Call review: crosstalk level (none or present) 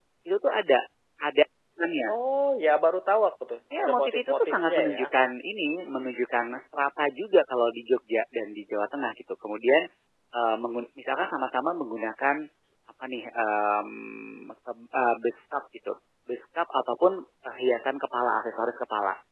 present